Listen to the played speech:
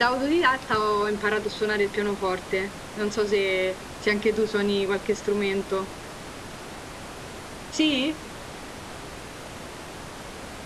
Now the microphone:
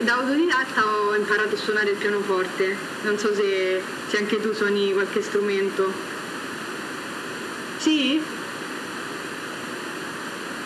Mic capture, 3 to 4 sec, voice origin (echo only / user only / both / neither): echo only